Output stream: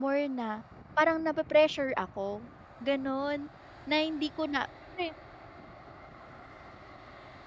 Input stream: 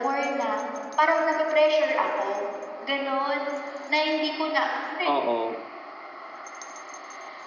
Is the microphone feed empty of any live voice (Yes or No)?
No